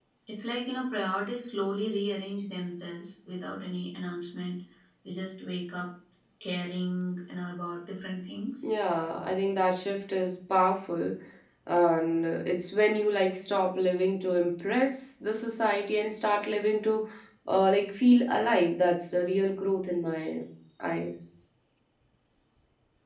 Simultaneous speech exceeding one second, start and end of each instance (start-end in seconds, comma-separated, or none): none